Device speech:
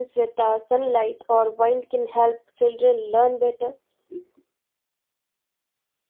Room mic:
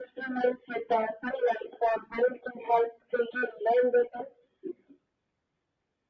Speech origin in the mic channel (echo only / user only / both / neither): echo only